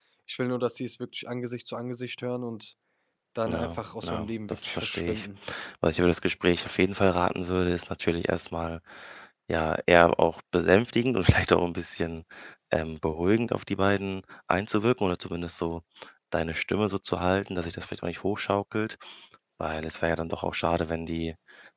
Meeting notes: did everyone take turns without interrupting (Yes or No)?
No